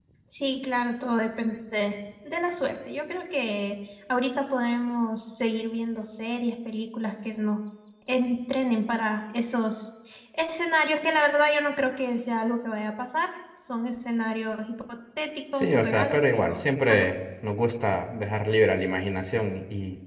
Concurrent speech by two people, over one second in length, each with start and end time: 15.5-17.1

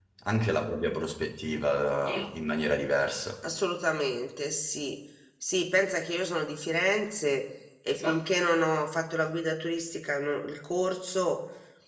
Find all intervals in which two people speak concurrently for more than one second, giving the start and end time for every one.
none

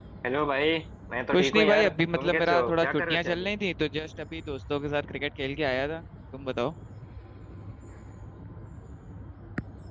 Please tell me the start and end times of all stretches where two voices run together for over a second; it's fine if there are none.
1.3-3.5

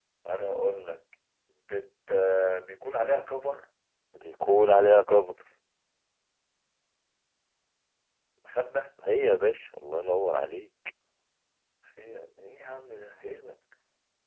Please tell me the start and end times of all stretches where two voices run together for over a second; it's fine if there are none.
none

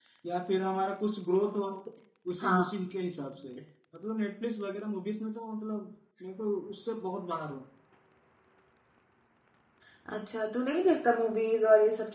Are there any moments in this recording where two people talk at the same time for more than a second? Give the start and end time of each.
none

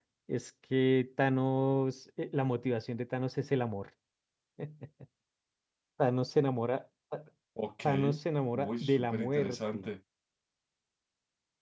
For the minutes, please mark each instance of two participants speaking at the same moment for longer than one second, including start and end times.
8.5-9.9

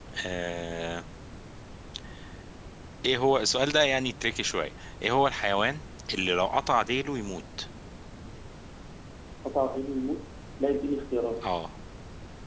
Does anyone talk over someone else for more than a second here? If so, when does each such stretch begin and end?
none

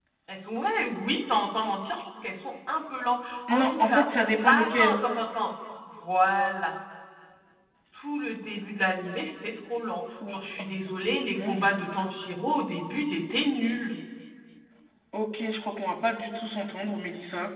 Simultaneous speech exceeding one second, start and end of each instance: 3.5-5.0

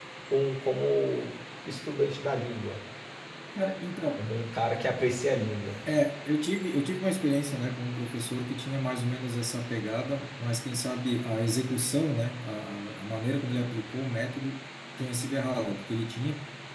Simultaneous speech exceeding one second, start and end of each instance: none

